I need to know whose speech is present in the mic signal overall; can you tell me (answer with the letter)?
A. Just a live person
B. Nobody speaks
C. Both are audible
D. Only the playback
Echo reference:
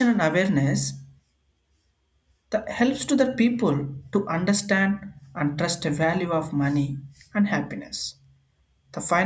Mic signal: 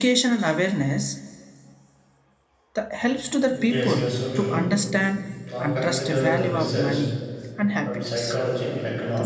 C